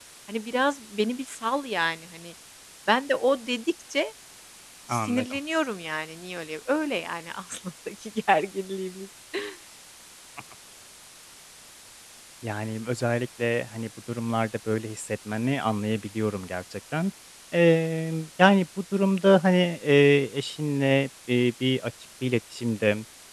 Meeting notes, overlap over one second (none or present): none